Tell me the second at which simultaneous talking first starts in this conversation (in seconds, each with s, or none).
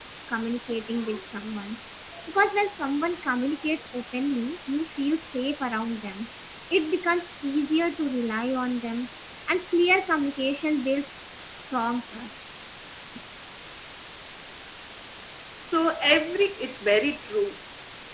none